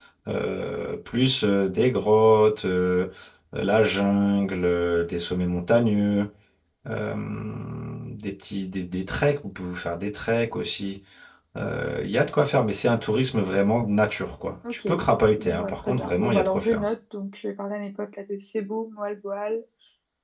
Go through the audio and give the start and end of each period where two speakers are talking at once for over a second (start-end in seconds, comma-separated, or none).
15.4-16.8